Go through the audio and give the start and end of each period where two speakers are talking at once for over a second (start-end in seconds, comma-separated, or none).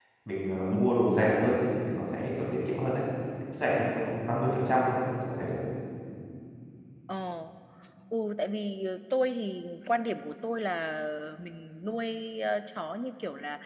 none